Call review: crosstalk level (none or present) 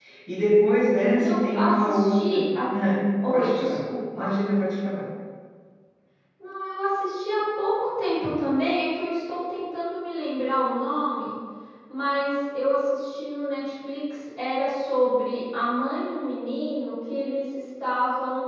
present